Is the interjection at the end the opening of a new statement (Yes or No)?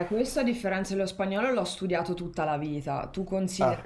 No